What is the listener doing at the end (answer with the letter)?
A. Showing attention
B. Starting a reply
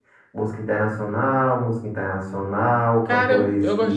B